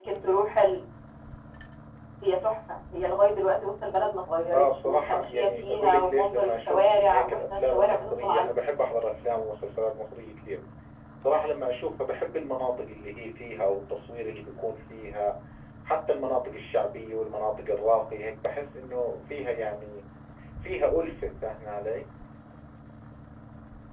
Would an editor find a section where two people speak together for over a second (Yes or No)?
Yes